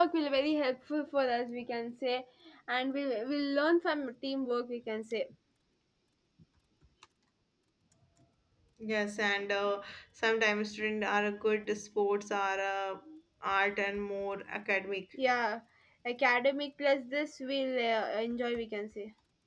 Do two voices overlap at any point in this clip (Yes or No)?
No